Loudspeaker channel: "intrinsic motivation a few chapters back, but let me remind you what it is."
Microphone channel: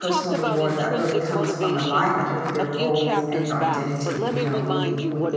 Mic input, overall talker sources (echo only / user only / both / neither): both